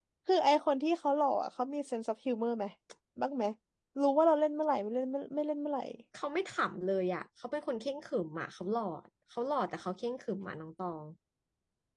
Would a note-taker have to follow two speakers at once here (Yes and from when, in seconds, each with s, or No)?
No